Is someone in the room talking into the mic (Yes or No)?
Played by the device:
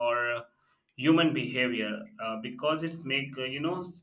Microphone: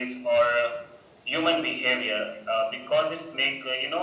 No